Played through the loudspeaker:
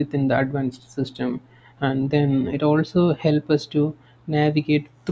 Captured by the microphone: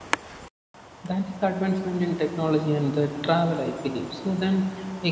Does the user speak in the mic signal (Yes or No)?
Yes